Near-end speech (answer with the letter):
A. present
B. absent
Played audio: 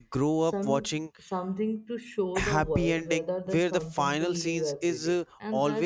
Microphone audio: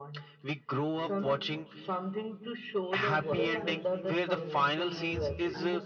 A